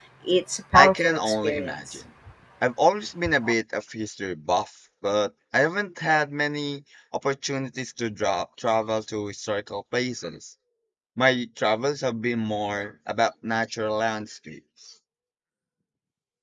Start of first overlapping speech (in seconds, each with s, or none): 0.8 s